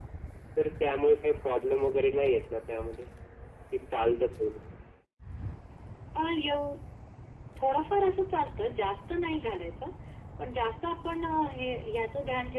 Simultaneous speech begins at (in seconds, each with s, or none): none